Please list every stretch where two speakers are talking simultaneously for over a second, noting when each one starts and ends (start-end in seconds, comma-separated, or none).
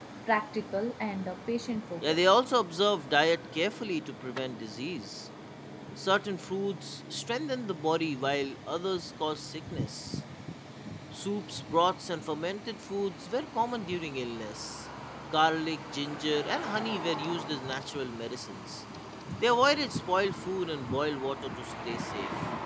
none